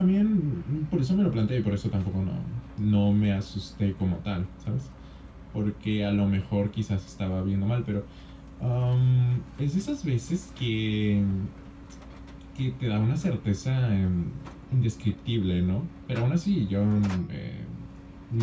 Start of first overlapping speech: none

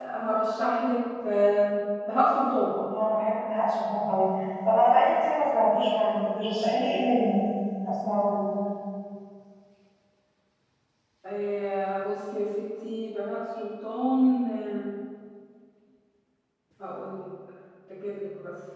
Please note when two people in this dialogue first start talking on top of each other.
none

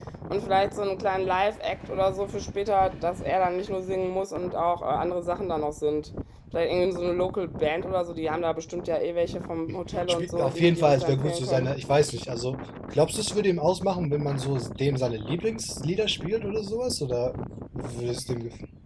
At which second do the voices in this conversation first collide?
10.1 s

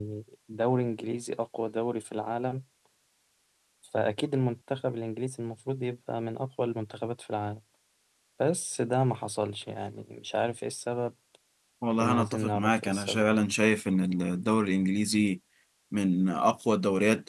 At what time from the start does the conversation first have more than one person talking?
12.0 s

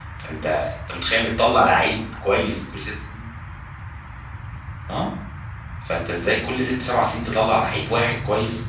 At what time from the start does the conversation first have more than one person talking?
none

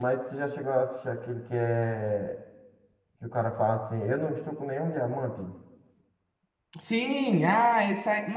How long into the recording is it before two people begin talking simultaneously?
none

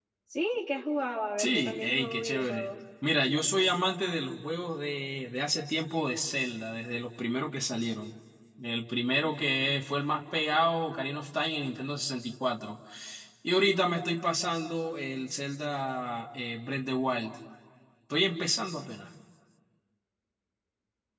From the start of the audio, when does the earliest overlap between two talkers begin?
1.4 s

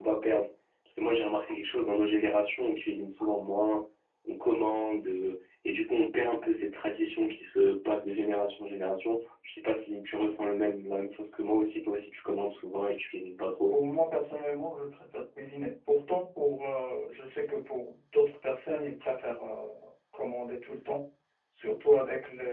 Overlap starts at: none

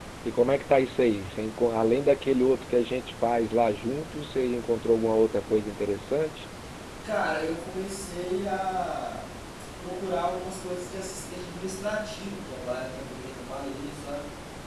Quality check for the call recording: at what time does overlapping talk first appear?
none

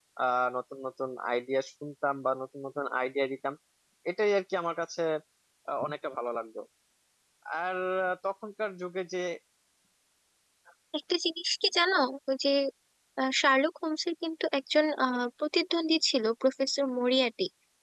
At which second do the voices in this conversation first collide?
none

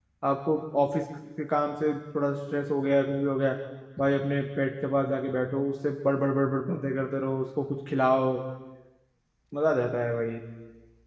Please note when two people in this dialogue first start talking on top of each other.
none

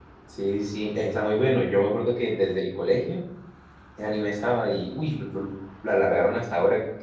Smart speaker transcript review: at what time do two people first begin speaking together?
none

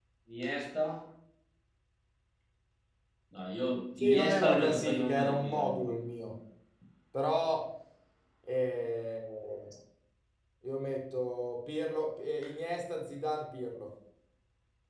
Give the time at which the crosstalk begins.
4.0 s

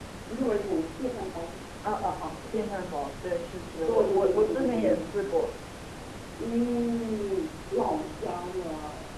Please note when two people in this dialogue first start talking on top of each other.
3.7 s

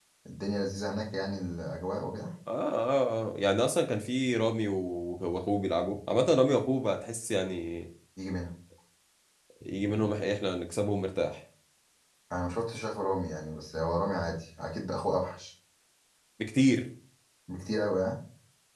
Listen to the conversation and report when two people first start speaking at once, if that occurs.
none

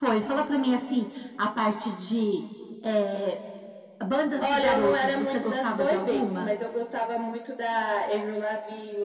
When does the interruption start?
4.4 s

